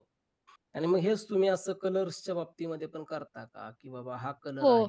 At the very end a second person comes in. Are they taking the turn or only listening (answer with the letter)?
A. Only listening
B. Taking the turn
B